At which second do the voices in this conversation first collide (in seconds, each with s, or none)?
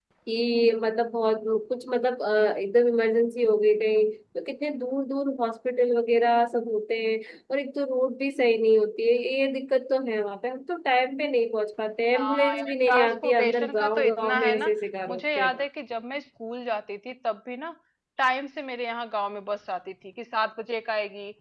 12.1 s